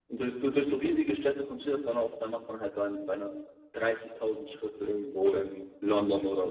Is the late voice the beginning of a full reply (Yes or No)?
Yes